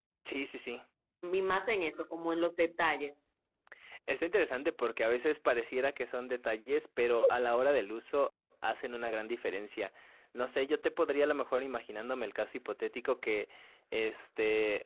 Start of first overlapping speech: none

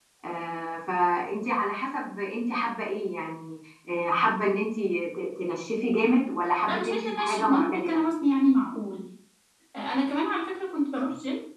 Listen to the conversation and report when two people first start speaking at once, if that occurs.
6.7 s

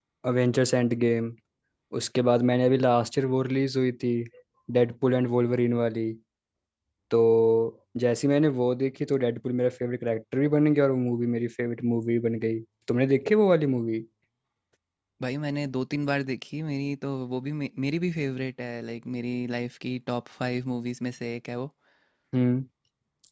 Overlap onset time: none

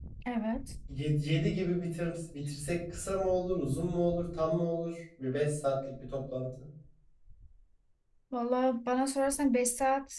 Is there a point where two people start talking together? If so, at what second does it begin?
none

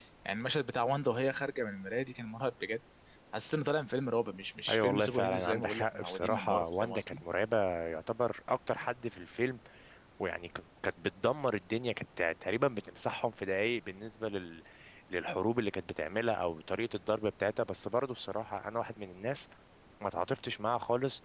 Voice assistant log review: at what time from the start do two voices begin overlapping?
4.7 s

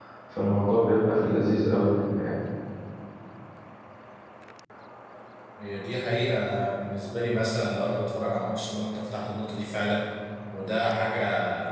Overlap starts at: none

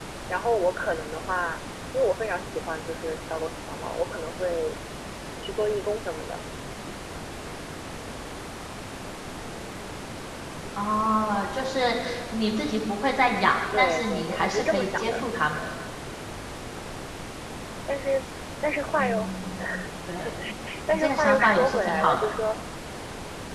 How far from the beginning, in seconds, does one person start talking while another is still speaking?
13.8 s

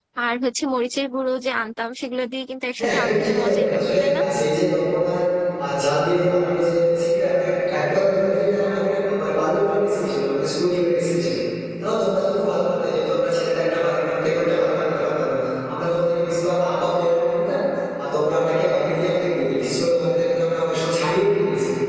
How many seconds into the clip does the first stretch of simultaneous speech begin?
2.8 s

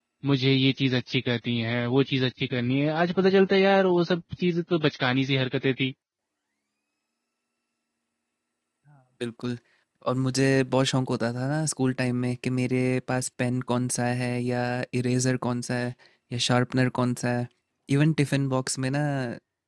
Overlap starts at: none

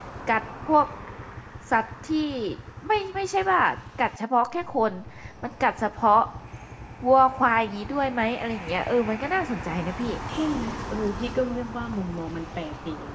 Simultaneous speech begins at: none

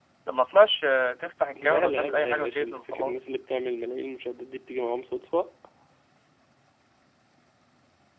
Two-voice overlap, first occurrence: 1.6 s

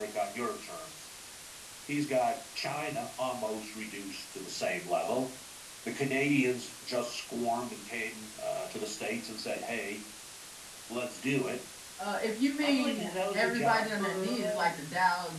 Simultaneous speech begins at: 12.6 s

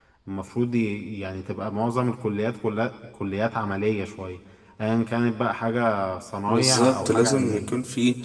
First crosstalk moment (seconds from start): 6.5 s

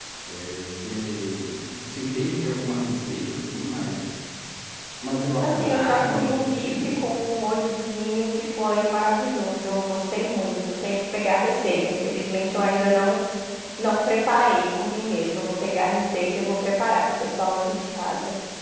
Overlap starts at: 5.4 s

